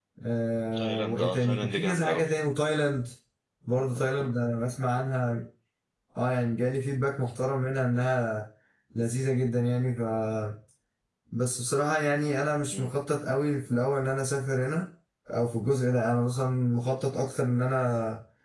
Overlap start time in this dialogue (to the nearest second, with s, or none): 1 s